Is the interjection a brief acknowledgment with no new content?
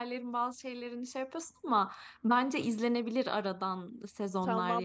No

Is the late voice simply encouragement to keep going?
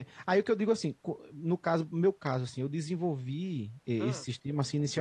Yes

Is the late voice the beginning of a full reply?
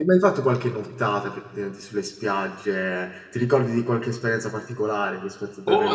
Yes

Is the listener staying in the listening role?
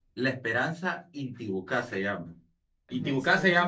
Yes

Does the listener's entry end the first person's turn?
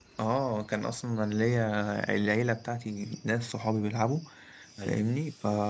No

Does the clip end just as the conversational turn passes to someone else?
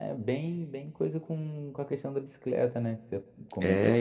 Yes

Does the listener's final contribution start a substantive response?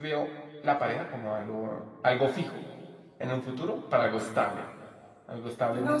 Yes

